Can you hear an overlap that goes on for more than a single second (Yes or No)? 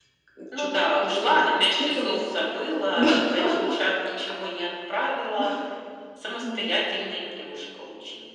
Yes